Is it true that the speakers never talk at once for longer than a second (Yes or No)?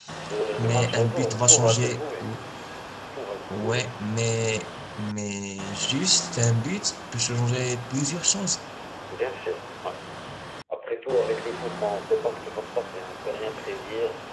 No